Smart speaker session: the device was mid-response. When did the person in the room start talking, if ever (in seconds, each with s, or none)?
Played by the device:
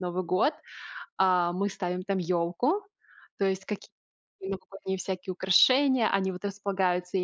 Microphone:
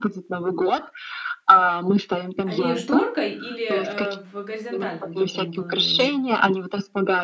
2.5 s